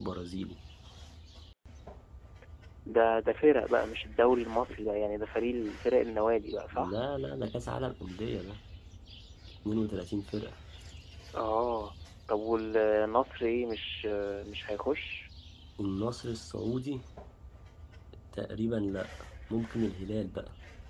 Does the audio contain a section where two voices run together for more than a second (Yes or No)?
No